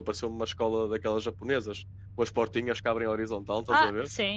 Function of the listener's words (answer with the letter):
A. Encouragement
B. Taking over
B